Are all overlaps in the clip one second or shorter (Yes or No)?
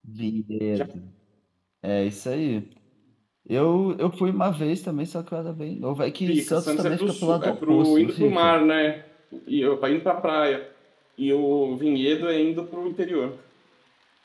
No